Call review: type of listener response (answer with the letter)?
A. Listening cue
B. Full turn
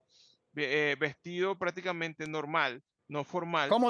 B